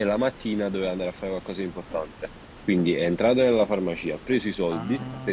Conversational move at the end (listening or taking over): listening